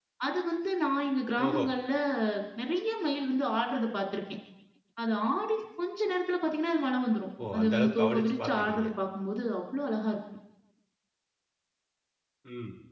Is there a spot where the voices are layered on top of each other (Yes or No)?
Yes